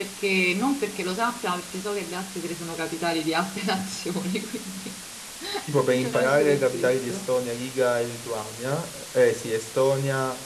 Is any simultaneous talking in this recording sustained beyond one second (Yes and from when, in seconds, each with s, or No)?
Yes, from 5.8 s